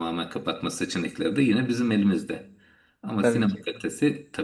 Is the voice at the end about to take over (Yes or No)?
No